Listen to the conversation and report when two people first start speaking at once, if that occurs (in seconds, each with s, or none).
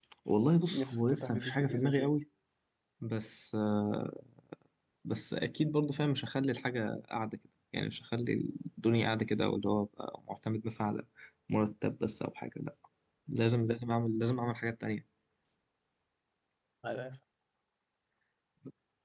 0.7 s